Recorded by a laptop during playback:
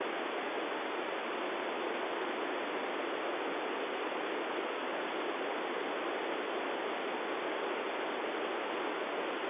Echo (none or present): none